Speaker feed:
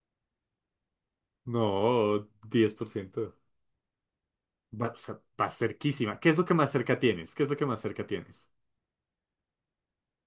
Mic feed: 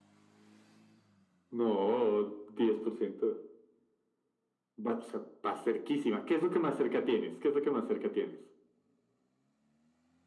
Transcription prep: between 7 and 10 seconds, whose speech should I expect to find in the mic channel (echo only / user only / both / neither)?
echo only